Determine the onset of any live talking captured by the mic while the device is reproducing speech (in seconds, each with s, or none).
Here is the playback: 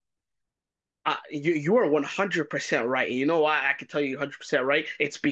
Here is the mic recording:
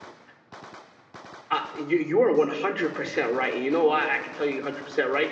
none